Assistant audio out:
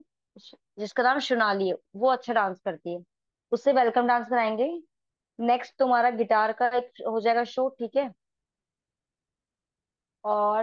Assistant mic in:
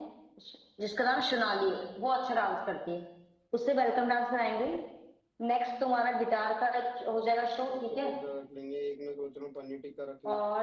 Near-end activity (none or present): present